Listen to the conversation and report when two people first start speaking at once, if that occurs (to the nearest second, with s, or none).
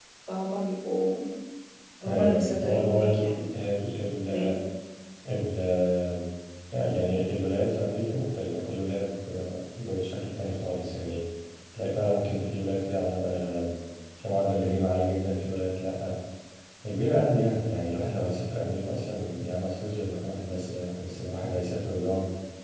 2 s